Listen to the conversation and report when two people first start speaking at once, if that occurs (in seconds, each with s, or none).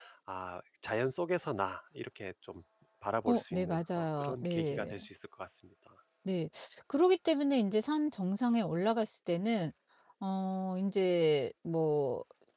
3.3 s